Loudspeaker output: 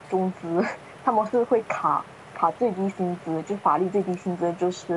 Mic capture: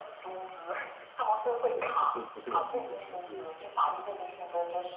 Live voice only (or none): 对的，不是不是我们能决定，这是